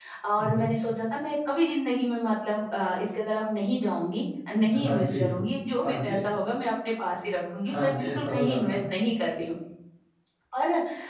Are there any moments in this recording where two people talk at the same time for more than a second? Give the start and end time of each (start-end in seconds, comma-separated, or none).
7.7-8.9